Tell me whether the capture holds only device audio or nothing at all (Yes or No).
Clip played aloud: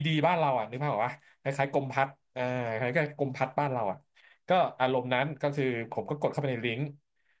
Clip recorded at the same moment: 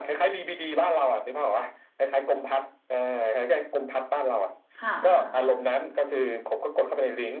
No